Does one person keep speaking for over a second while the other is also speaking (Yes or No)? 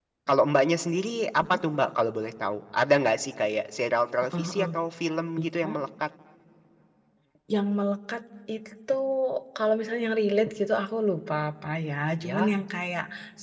No